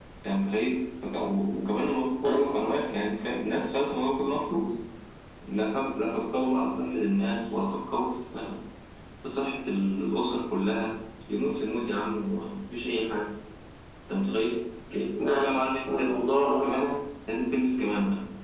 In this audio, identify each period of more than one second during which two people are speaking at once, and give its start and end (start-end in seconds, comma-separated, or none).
15.2-16.8